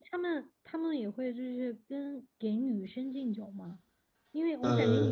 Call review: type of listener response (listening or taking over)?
listening